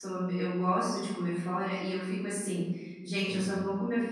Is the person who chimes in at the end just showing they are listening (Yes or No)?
Yes